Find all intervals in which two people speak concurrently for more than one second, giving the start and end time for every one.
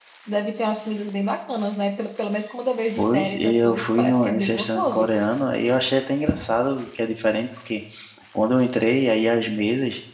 3.0-5.1

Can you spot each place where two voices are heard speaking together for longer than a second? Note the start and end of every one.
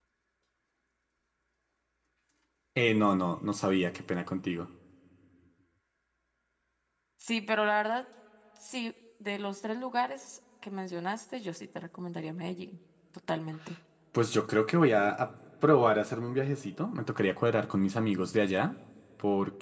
none

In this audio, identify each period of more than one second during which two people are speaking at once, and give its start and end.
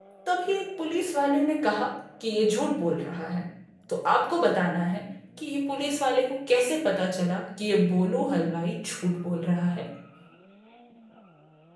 none

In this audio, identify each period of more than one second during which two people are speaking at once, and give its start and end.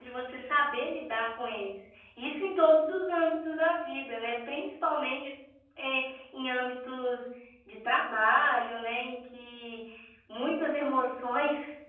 none

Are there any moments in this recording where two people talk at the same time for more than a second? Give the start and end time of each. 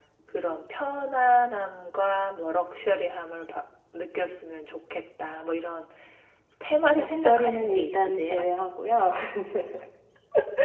7.0-8.3

